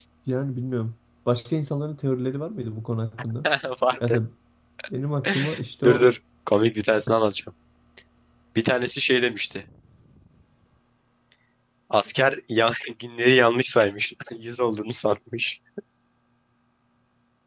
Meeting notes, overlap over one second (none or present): none